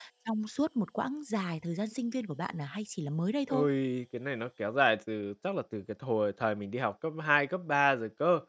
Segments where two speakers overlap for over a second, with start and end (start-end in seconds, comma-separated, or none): none